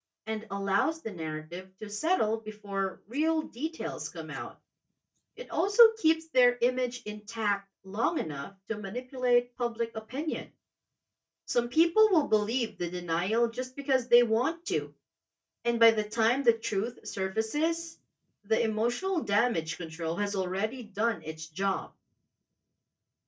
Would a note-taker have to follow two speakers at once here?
No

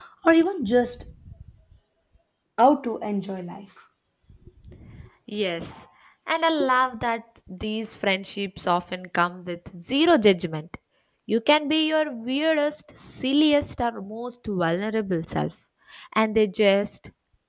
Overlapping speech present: No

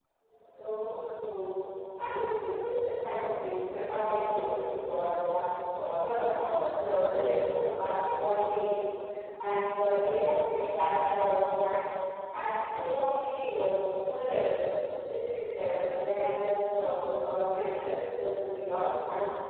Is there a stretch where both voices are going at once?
No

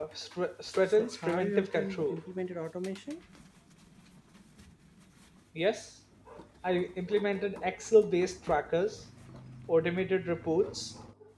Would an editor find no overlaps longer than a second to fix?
No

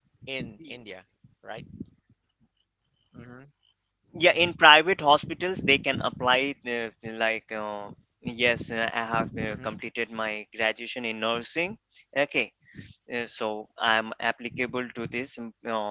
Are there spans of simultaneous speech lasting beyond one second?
No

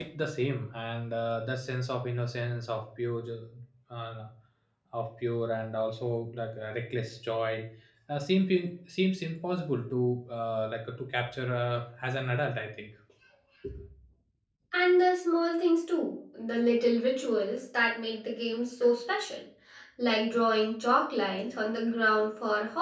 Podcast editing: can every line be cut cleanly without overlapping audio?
Yes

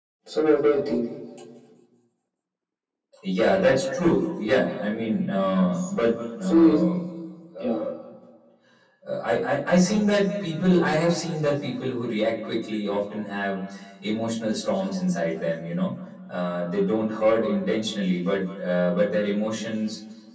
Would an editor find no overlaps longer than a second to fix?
Yes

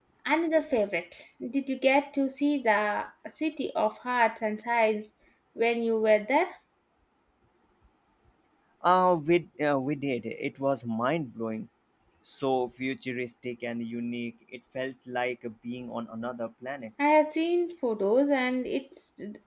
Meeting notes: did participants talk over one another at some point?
No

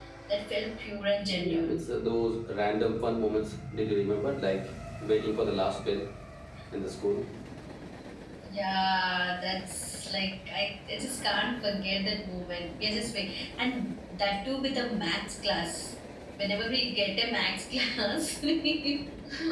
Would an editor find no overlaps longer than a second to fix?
Yes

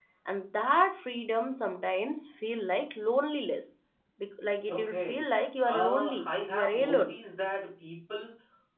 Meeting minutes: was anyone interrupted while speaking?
Yes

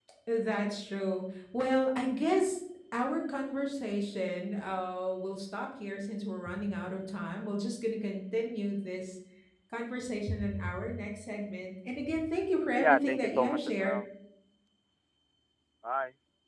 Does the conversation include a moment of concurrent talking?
Yes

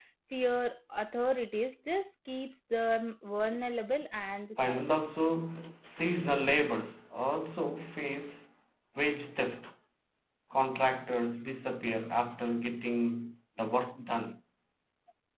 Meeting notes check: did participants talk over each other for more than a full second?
No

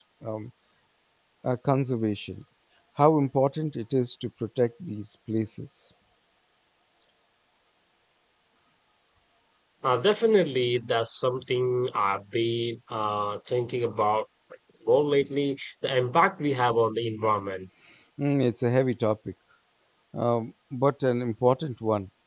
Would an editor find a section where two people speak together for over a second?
No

